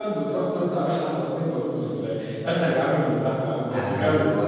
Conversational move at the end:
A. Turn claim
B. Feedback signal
A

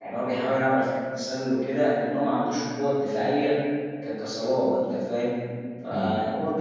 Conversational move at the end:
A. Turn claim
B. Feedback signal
B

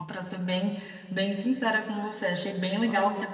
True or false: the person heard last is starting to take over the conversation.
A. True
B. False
B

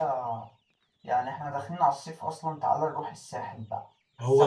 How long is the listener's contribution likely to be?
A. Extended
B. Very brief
A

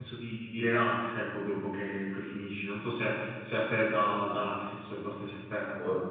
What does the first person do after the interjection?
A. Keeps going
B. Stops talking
B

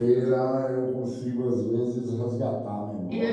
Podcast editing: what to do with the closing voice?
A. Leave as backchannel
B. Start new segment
B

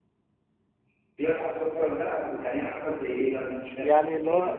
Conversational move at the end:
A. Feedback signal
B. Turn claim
B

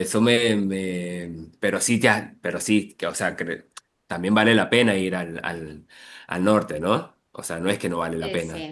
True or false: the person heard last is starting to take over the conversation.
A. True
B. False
A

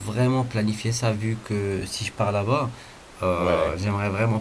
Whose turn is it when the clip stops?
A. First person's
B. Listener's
A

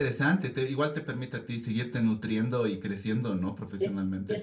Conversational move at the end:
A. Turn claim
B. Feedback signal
A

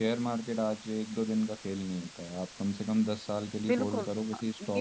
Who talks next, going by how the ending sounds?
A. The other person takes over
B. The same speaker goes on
A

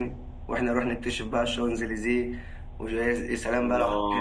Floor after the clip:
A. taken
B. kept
A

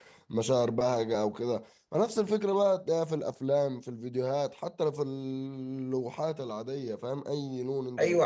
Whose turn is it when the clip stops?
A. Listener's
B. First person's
A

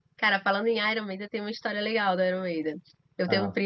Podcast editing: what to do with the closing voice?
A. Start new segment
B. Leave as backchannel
B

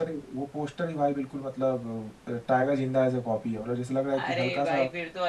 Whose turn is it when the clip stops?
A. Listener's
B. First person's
A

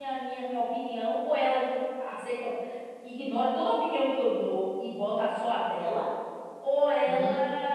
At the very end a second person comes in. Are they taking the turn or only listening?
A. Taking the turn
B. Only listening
B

